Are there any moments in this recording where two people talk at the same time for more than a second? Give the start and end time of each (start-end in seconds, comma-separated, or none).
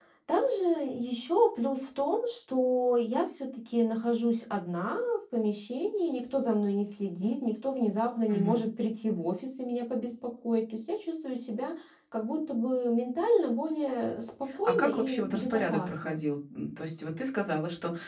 14.6-16.2